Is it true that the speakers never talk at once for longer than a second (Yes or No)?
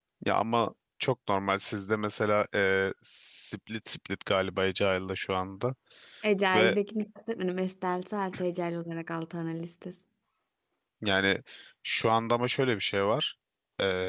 Yes